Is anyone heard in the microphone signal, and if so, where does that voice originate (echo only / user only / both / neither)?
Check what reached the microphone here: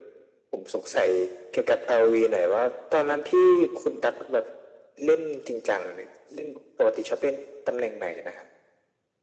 echo only